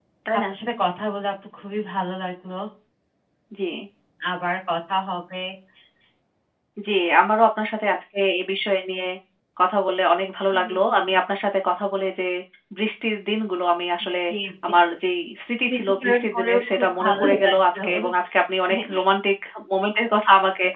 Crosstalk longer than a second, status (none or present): present